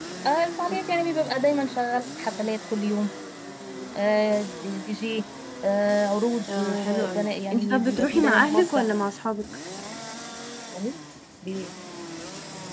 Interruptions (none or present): present